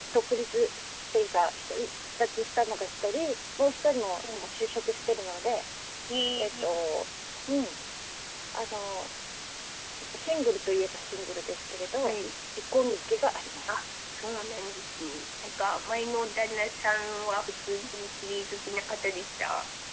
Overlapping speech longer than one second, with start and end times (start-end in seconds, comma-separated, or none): none